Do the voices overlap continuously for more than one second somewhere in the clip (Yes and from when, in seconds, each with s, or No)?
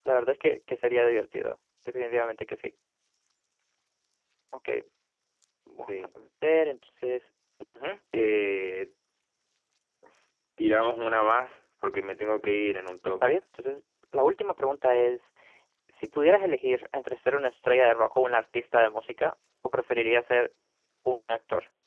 No